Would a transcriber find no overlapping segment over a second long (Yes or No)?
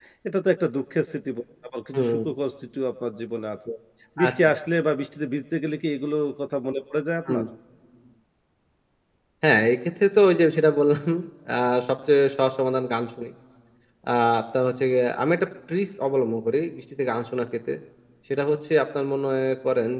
Yes